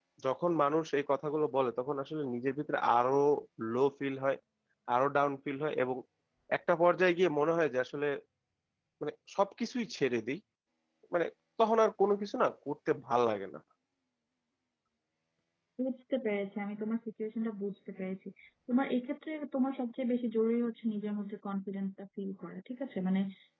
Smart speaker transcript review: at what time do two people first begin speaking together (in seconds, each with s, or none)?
none